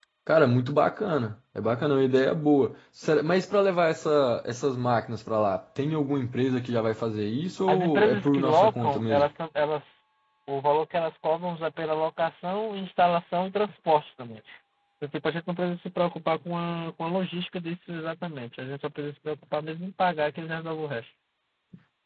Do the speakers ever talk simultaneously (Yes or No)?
Yes